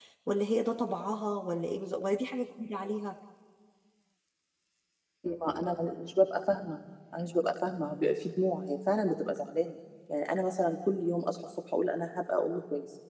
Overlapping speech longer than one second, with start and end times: none

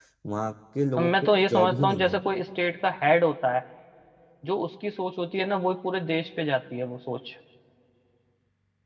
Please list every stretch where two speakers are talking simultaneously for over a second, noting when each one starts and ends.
1.0-2.2

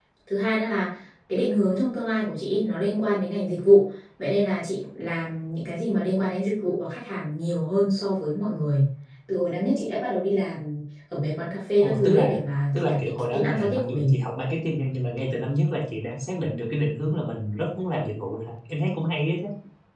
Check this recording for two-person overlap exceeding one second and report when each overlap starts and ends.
12.7-14.1

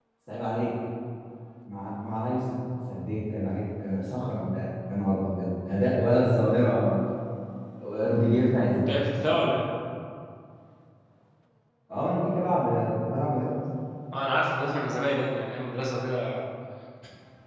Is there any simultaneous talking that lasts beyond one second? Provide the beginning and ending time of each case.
none

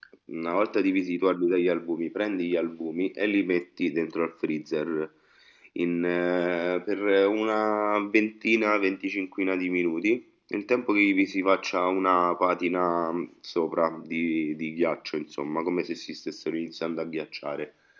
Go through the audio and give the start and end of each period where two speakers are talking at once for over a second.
none

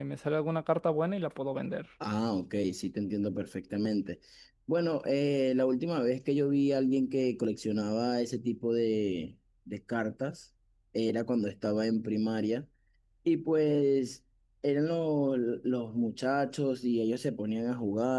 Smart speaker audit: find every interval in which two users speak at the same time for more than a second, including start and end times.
none

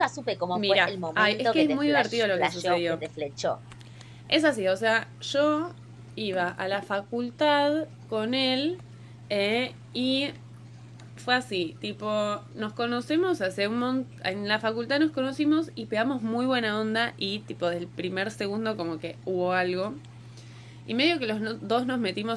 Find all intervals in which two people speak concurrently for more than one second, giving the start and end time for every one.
0.6-3.0

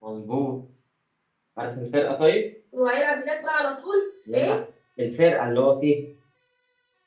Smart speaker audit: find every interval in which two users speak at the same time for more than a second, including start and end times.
none

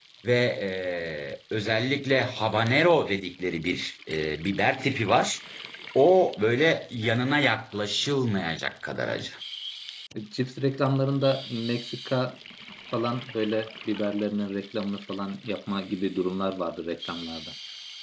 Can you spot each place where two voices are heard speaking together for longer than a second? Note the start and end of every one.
none

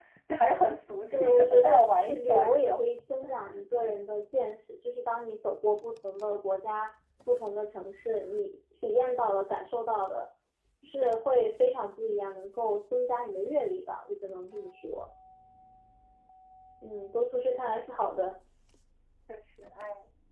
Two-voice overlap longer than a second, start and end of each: 1.1-2.8

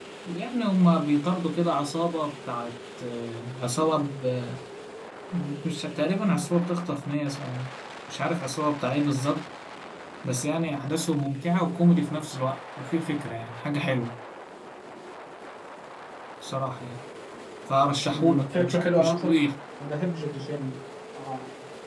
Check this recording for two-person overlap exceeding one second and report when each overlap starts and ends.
18.1-19.3

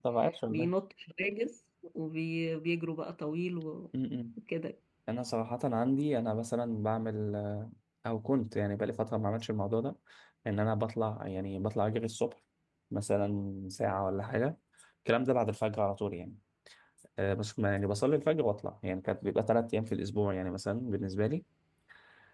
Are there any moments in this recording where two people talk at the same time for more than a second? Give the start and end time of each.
none

